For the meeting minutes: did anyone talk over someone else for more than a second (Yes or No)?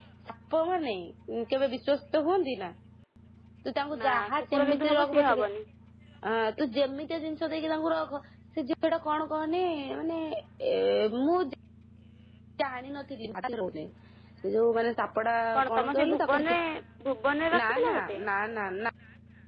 Yes